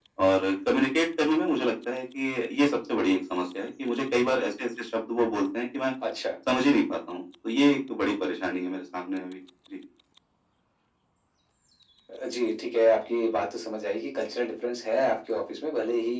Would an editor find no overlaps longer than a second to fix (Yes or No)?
Yes